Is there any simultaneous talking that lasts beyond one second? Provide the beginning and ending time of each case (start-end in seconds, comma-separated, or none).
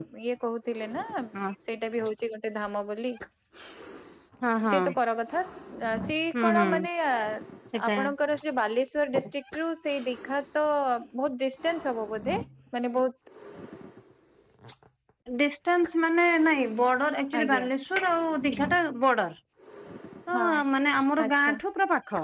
none